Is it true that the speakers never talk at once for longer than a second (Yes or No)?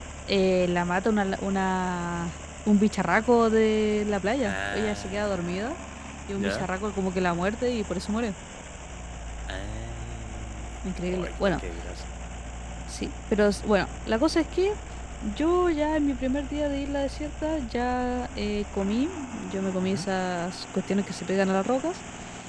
No